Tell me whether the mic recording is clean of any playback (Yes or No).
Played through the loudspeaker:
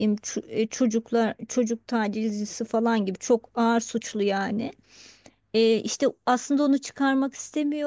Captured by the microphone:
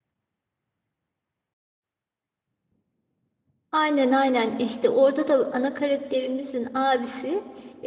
Yes